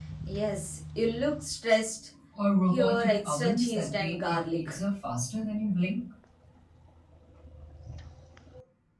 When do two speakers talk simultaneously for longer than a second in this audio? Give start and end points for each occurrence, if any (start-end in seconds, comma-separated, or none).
2.7-4.8